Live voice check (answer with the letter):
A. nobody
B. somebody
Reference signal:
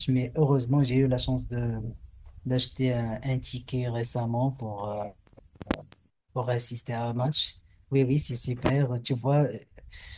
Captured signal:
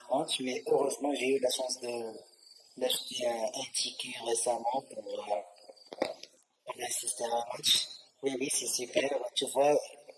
A